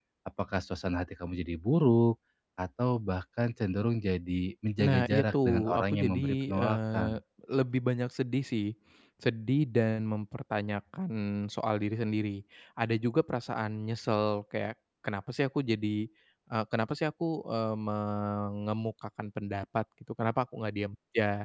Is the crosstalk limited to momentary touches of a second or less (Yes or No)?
No